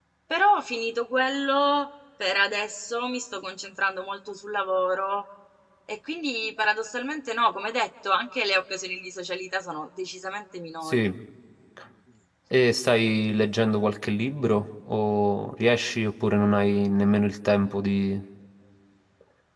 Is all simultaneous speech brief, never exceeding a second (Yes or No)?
Yes